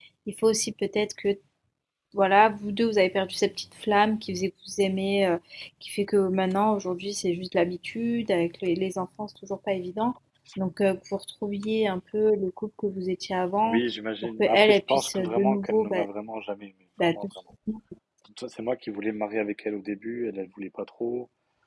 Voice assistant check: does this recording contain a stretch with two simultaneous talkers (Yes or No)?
Yes